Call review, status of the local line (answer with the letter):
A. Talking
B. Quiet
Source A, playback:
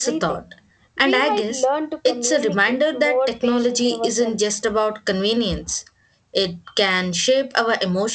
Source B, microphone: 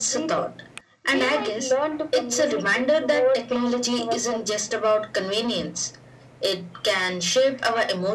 B